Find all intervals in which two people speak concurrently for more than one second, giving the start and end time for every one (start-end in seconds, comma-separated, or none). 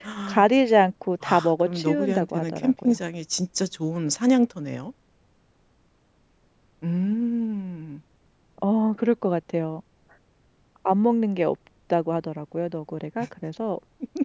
1.2-2.9